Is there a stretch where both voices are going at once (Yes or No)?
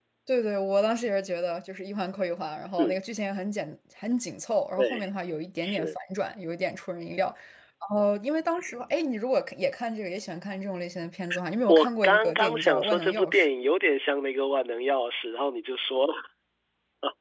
Yes